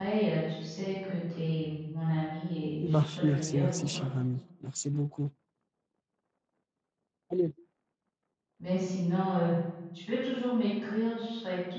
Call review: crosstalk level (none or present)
present